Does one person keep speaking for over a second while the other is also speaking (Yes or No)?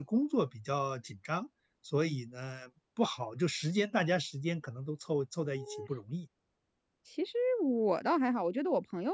No